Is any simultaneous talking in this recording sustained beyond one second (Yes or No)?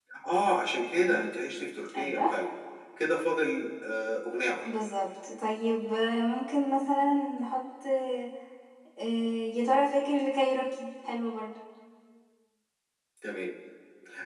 No